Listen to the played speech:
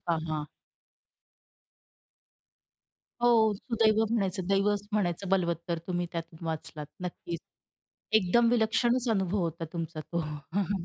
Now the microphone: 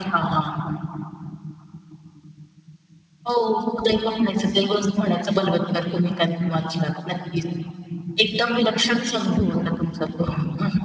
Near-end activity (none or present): none